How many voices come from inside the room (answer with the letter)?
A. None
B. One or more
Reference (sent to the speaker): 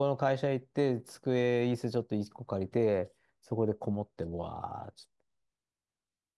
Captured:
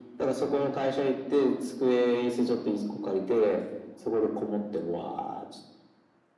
A